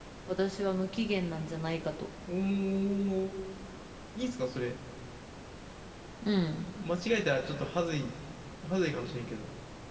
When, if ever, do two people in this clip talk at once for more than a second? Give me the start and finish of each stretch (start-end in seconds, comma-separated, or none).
none